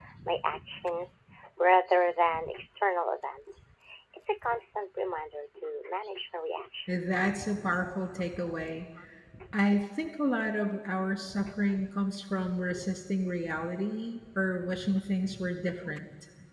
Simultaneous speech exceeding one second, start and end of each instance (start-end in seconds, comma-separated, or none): none